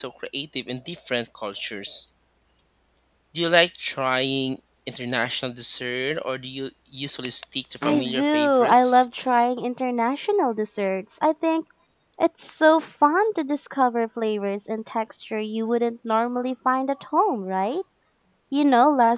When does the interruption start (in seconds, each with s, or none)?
7.8 s